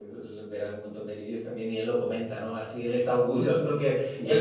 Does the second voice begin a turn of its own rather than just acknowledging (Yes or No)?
No